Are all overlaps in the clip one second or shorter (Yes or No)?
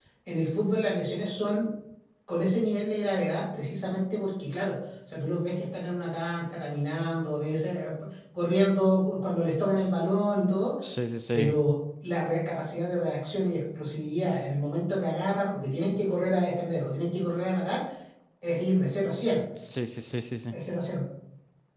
Yes